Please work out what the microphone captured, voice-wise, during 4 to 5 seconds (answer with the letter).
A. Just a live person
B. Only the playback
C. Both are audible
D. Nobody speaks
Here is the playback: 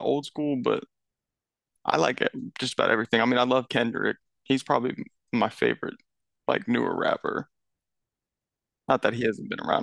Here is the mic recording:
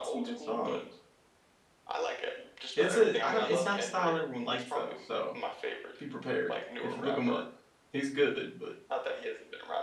C